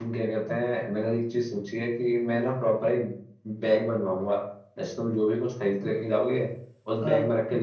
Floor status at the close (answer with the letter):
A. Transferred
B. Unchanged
B